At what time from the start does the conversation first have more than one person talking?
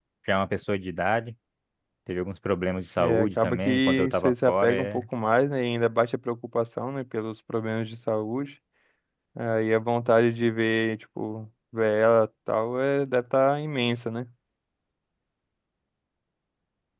3.0 s

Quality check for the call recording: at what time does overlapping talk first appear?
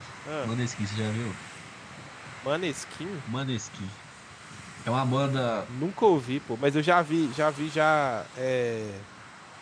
none

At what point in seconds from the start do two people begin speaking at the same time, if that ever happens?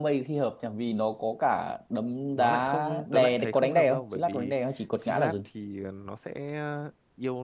2.4 s

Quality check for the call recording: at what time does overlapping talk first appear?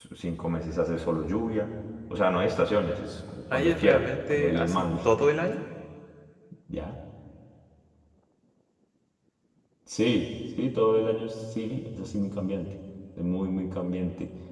3.5 s

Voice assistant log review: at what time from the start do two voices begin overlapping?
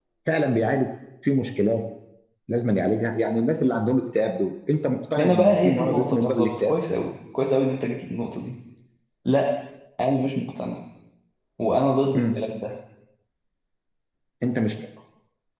5.2 s

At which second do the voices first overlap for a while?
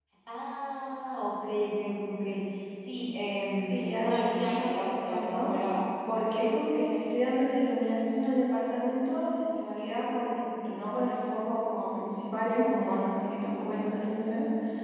3.5 s

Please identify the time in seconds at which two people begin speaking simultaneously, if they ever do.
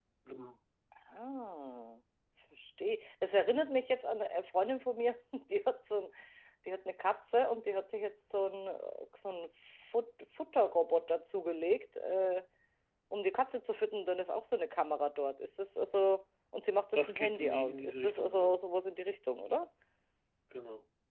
16.9 s

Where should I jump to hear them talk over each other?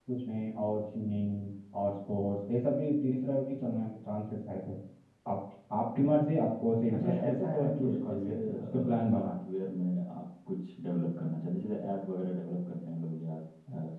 6.9 s

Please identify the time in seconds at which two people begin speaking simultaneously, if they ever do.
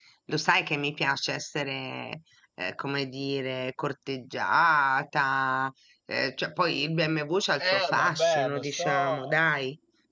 7.6 s

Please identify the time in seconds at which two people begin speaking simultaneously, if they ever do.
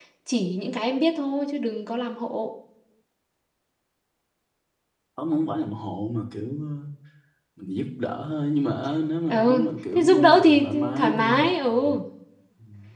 9.3 s

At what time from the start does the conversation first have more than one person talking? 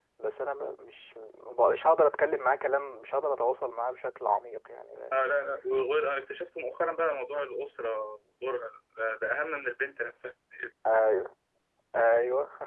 none

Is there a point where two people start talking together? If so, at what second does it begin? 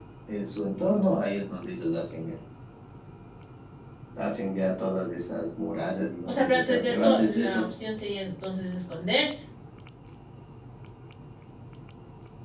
6.2 s

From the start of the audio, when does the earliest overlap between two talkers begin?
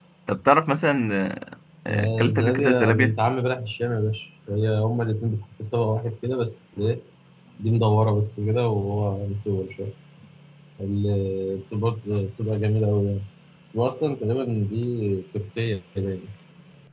1.9 s

